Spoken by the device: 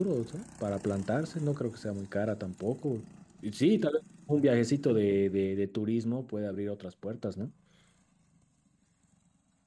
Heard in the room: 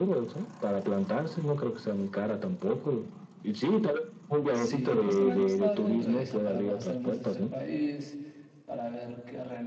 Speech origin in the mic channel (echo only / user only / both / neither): both